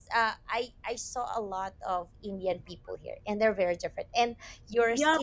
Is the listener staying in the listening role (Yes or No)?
No